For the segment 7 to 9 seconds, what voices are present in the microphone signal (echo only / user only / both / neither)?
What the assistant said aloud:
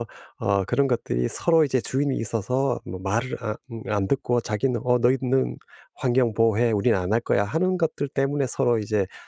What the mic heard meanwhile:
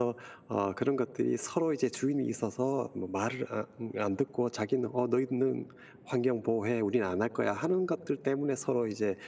echo only